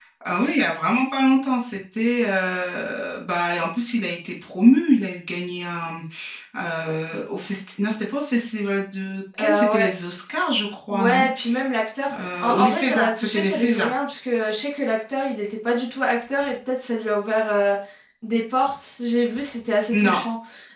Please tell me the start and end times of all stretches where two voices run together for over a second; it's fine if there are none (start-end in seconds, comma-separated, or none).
12.4-13.9